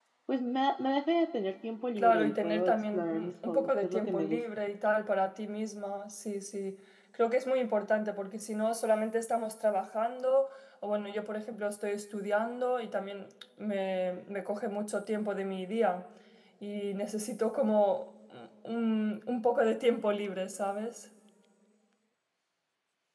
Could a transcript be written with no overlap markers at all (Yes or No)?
No